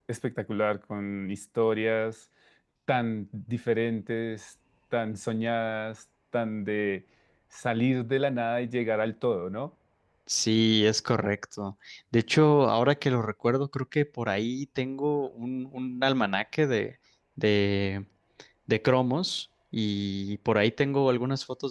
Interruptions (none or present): none